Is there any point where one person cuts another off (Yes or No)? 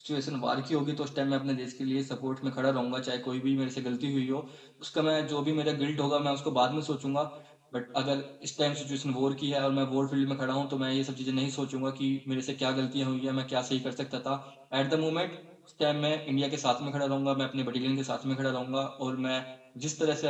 No